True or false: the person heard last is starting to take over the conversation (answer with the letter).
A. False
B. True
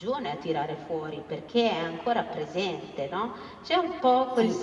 A